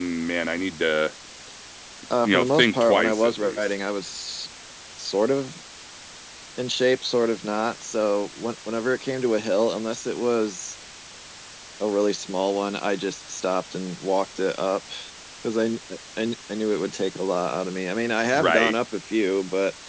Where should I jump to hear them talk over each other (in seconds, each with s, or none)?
2.2 s